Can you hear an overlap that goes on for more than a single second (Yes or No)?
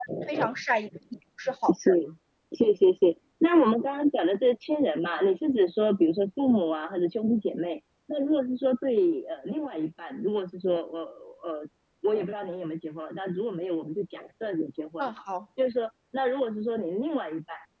No